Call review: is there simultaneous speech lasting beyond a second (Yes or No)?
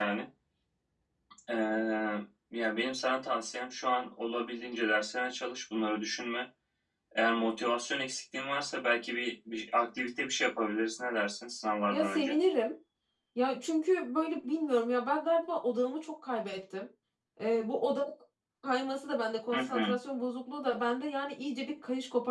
No